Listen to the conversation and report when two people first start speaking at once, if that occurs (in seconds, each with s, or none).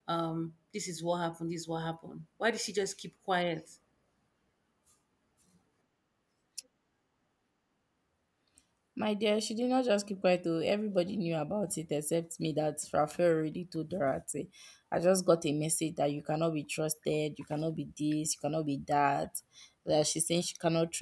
none